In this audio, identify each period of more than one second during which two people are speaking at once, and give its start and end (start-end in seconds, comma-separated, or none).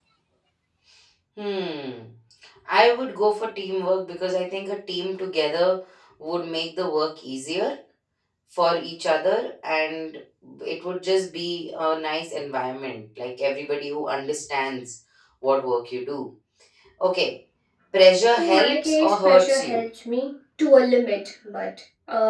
18.3-19.8